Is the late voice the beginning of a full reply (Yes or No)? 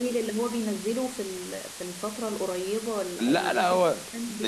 Yes